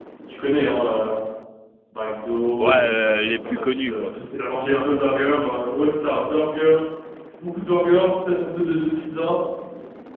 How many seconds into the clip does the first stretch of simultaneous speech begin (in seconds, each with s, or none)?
2.6 s